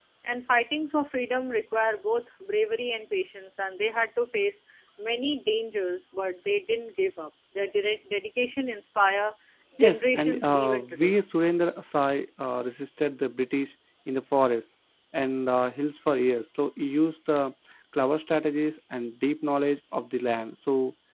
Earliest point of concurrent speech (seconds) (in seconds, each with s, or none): 9.8 s